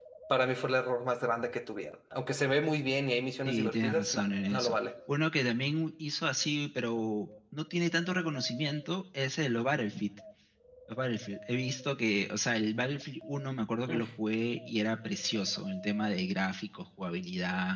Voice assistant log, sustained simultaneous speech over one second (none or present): present